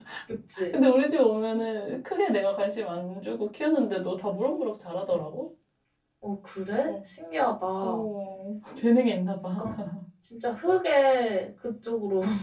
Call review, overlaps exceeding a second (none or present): none